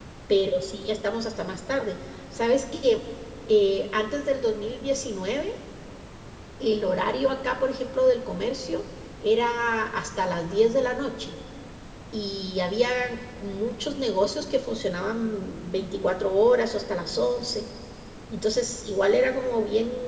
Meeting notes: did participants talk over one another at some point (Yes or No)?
No